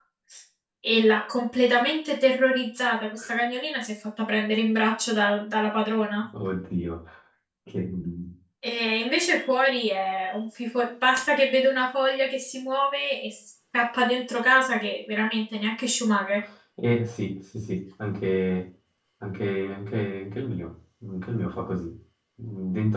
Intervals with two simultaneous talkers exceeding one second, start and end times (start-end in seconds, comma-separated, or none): none